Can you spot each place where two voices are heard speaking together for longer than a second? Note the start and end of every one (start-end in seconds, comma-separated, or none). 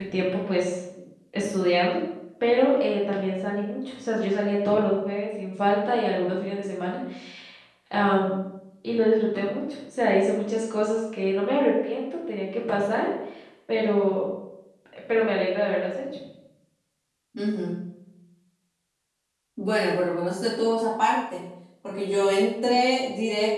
none